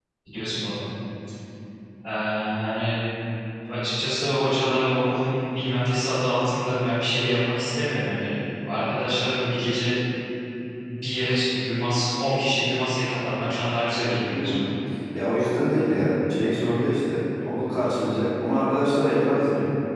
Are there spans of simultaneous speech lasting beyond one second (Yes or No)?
No